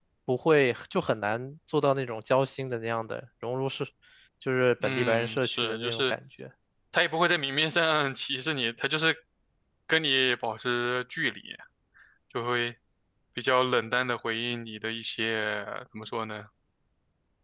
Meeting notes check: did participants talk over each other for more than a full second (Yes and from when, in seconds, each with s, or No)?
Yes, from 4.8 s